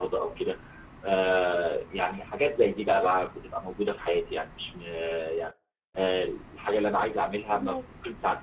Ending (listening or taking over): listening